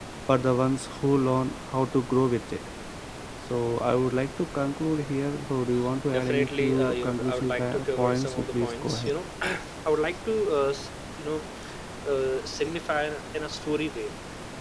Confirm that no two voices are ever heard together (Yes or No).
No